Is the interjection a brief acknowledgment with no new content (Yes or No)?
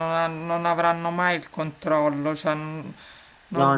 Yes